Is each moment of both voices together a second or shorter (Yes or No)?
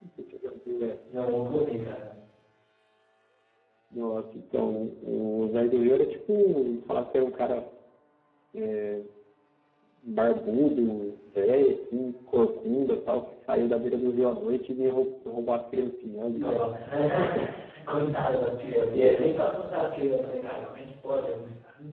Yes